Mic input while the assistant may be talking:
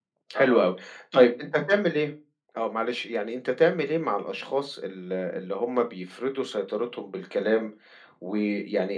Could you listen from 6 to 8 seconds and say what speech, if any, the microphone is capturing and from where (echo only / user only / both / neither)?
echo only